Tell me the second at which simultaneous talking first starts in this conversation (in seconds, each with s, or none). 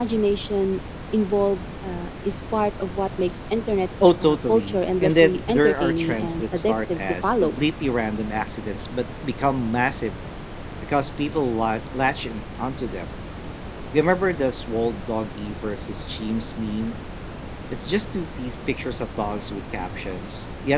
4.0 s